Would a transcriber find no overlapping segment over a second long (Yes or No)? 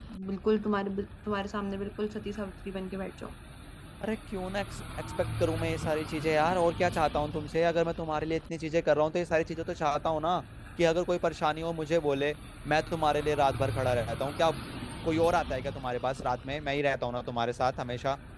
Yes